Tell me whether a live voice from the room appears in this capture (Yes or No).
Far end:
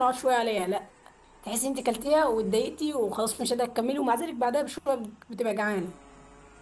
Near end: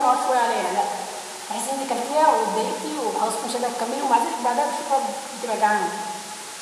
No